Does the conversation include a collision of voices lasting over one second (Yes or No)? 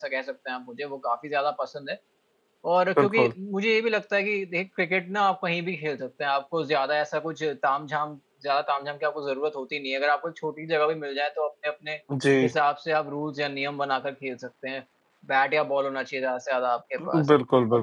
No